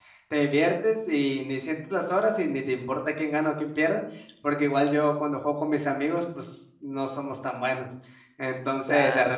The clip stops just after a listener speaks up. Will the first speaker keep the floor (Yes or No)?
Yes